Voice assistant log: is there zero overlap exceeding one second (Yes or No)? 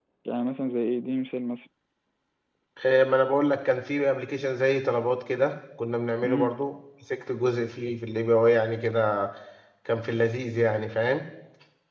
Yes